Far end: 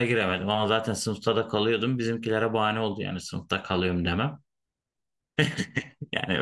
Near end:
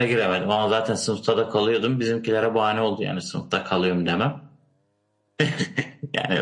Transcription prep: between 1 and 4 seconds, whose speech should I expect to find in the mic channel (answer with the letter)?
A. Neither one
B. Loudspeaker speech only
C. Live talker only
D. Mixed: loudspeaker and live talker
B